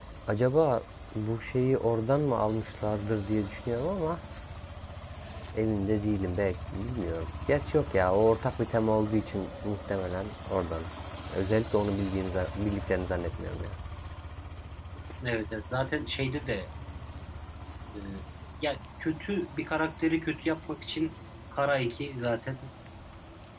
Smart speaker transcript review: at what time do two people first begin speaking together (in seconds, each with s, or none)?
none